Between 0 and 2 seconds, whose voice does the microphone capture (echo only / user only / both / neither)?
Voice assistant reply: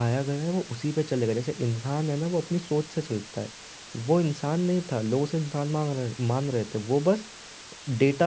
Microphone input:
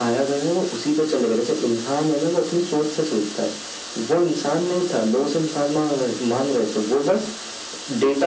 echo only